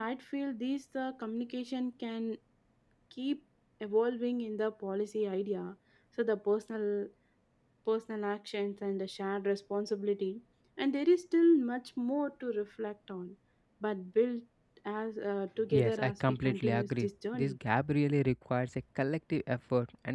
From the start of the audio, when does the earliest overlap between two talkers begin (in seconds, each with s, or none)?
15.7 s